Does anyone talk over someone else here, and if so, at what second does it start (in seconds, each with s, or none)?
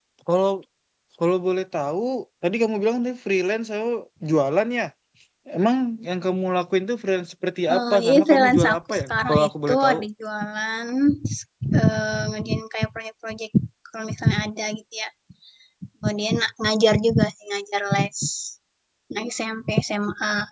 7.7 s